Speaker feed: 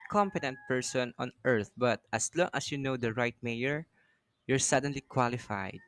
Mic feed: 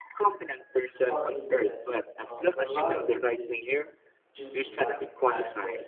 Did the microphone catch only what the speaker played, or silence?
No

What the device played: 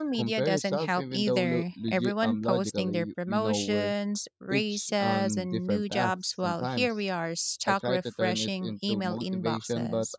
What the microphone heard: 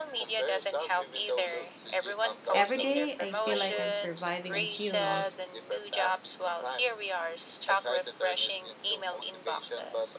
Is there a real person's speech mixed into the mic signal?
Yes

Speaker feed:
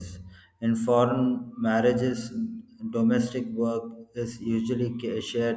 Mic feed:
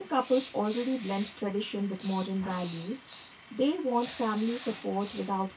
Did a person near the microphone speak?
Yes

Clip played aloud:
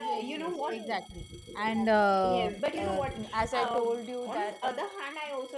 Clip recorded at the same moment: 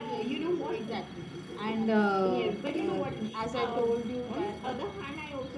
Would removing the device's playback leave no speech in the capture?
Yes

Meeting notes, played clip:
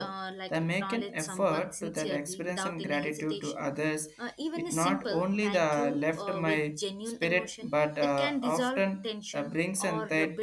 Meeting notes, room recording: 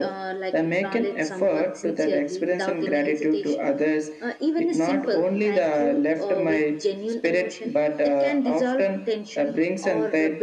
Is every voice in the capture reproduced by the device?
Yes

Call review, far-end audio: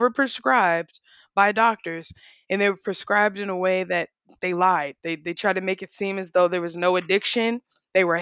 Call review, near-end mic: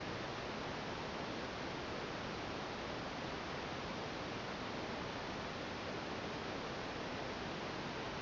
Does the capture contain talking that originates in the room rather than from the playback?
No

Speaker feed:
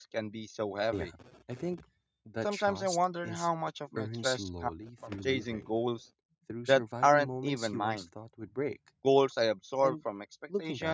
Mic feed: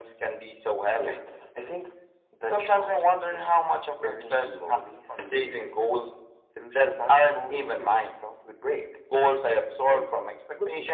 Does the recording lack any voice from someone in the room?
Yes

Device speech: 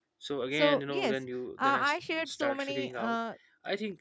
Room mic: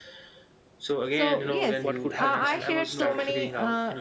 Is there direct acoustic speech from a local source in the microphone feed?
Yes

